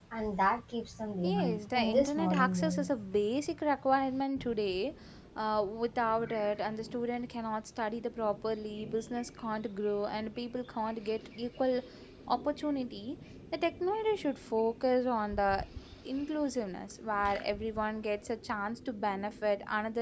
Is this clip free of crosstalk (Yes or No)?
No